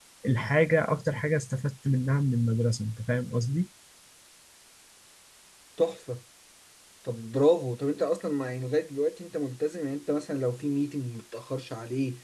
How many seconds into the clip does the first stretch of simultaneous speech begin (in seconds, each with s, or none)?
none